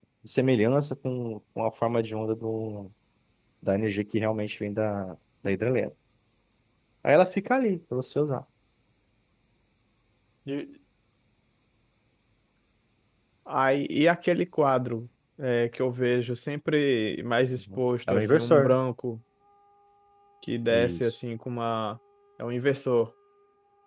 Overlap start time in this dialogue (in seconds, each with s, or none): 17.6 s